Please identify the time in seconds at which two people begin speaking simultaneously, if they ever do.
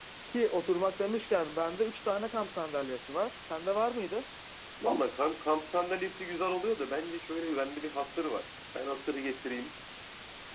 none

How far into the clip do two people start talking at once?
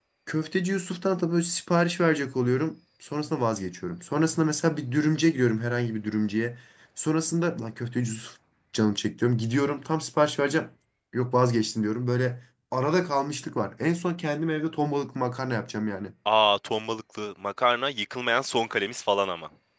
none

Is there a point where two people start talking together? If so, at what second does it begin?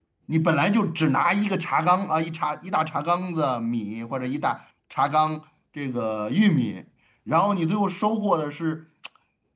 none

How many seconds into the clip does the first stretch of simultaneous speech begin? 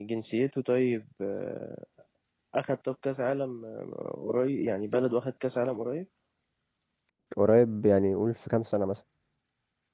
none

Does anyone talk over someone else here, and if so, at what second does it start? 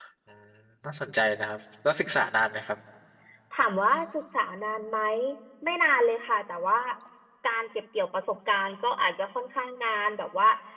none

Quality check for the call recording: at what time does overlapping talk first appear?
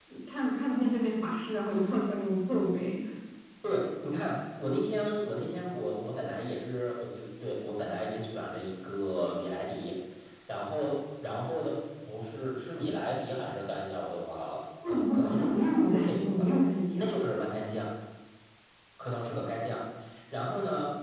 14.8 s

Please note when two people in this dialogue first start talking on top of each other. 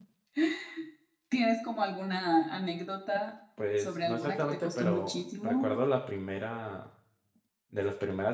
3.6 s

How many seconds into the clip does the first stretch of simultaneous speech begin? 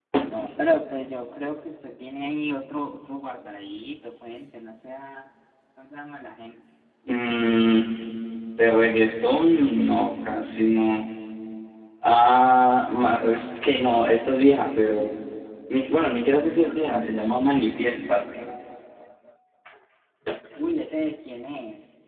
none

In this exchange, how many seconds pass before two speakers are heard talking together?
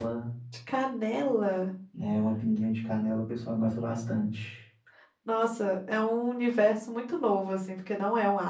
none

